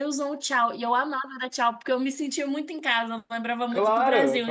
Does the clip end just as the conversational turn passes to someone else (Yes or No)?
Yes